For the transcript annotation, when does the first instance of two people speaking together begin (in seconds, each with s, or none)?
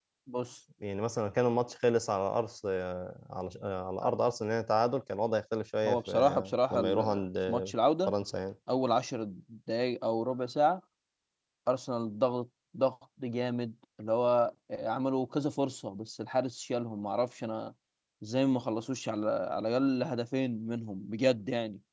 5.8 s